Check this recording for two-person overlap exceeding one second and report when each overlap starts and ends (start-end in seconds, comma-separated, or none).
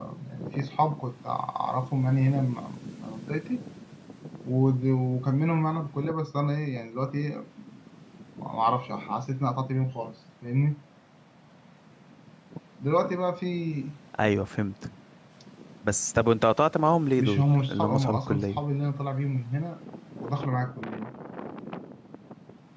17.2-18.6